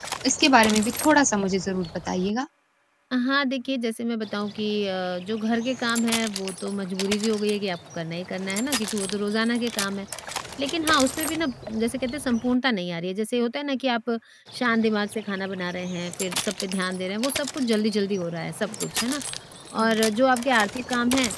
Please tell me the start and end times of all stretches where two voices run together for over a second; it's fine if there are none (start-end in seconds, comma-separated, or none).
none